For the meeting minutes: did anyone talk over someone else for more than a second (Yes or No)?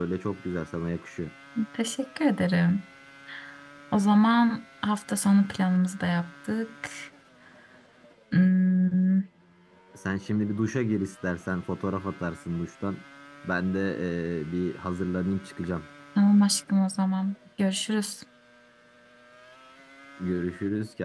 No